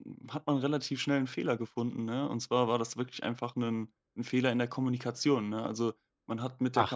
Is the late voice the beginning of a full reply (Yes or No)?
No